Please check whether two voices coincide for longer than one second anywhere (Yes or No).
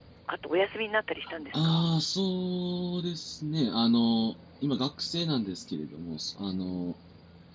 No